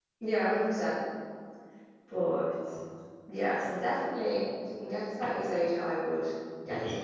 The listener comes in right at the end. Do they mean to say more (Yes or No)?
Yes